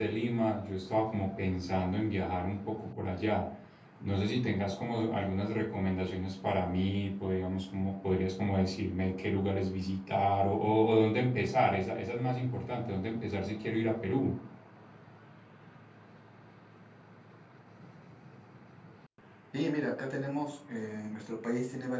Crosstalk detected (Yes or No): No